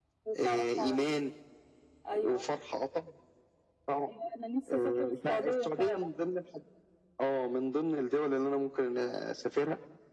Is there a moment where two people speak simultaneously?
Yes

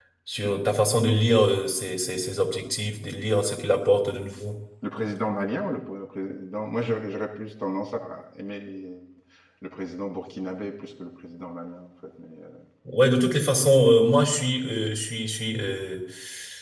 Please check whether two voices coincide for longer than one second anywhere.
No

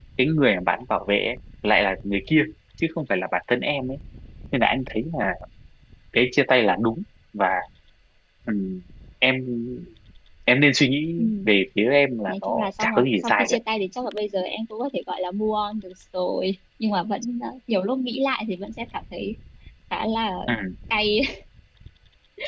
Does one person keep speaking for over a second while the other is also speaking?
Yes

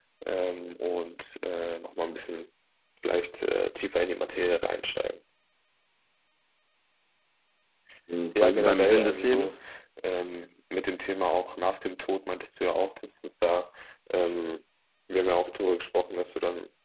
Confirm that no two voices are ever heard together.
No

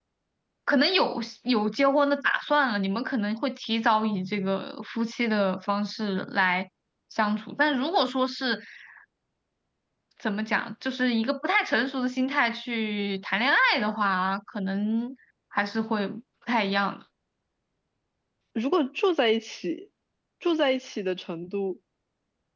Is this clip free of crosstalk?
Yes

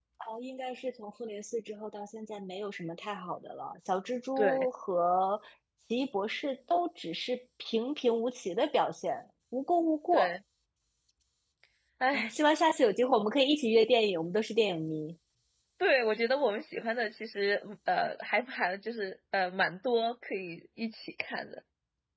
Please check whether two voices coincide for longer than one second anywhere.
No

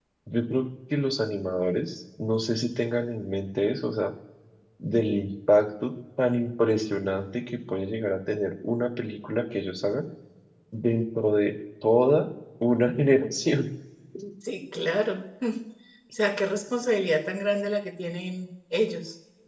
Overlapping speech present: No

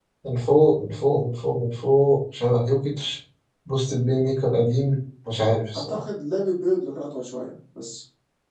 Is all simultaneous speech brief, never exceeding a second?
Yes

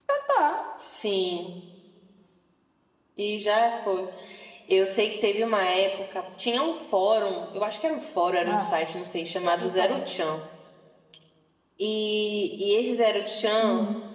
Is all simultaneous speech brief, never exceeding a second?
Yes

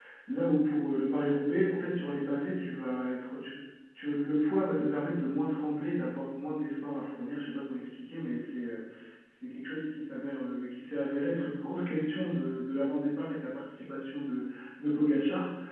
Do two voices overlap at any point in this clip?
No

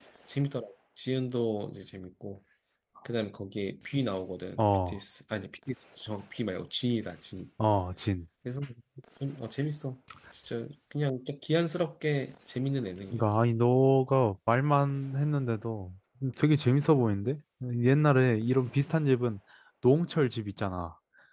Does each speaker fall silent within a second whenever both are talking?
Yes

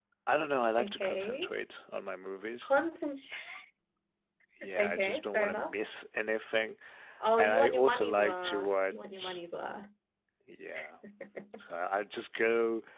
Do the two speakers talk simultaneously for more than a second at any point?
Yes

